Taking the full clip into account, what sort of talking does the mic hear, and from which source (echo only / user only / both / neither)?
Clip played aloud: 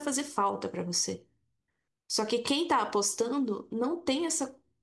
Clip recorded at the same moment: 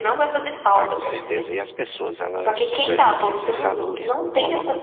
both